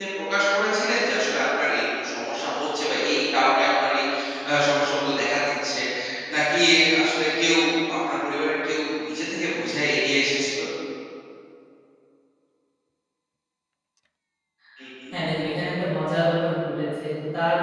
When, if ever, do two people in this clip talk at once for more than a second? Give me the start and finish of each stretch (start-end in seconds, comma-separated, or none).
none